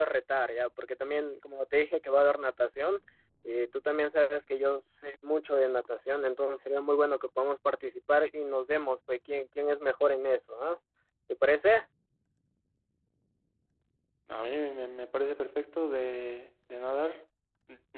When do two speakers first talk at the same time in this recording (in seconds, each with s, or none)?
none